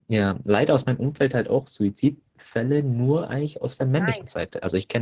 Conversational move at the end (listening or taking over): listening